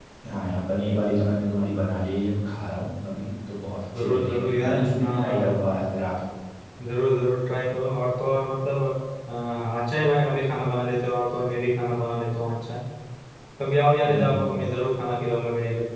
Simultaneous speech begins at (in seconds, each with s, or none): 4.0 s